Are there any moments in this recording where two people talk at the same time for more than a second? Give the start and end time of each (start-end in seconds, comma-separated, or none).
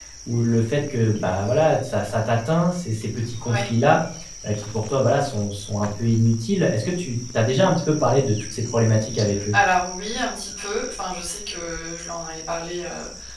none